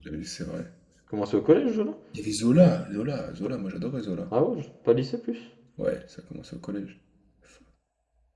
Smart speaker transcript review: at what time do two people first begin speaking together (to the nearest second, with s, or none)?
none